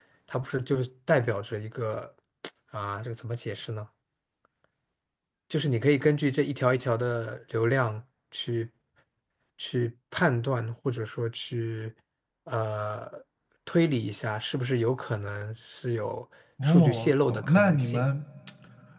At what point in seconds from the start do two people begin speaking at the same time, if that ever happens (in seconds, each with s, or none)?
16.6 s